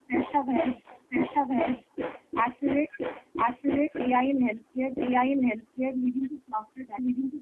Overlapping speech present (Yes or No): No